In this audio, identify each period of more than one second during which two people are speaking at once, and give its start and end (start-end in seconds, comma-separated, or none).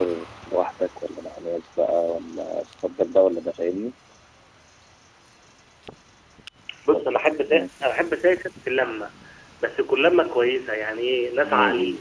none